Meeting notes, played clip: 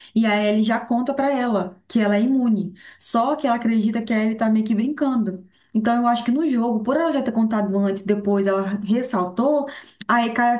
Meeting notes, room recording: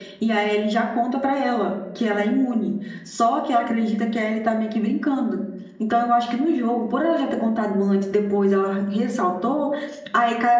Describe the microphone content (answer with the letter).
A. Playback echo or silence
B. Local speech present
A